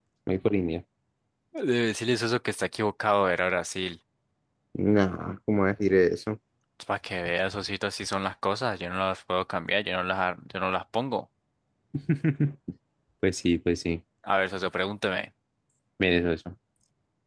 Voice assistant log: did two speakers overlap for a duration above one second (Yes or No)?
No